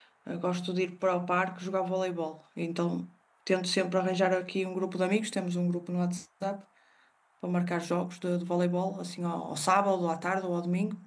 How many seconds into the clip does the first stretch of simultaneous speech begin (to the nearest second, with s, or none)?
none